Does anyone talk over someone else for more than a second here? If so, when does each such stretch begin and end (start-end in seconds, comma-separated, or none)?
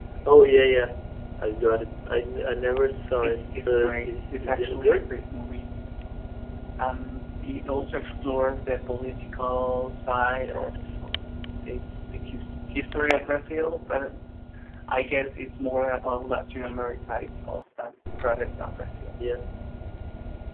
3.2-5.1